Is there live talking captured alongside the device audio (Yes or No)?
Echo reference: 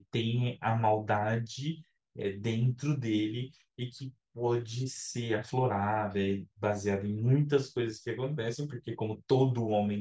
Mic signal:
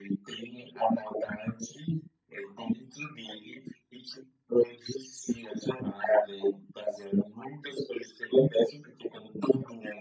No